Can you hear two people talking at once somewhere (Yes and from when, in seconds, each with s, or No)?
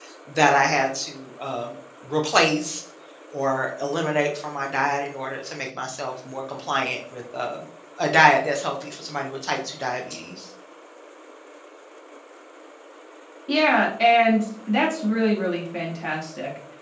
No